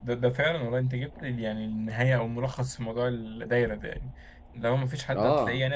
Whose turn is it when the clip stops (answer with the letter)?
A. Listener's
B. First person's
B